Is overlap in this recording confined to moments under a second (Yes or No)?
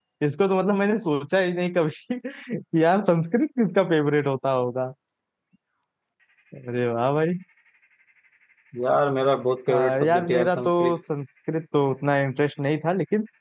No